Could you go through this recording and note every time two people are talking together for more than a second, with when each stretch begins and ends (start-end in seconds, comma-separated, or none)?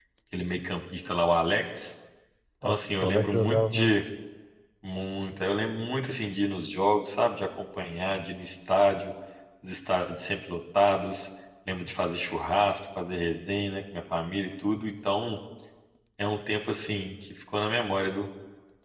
2.6-4.0